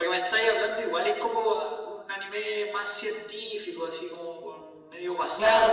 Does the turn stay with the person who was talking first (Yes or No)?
No